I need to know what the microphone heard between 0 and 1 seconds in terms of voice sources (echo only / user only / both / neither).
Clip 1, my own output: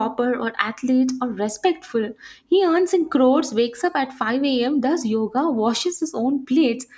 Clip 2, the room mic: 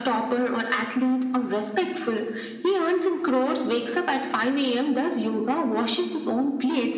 echo only